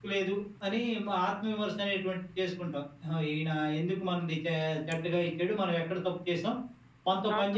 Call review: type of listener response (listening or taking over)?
taking over